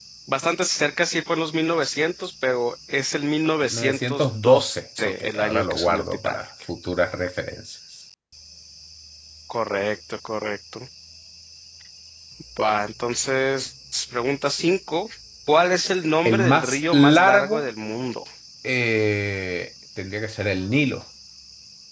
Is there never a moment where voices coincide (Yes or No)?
No